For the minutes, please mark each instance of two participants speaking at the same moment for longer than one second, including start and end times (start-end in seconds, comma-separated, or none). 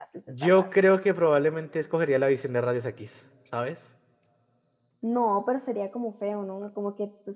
none